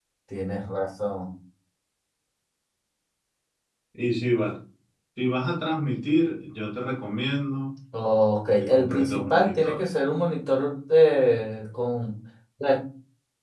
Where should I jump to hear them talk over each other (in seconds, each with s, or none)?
8.6 s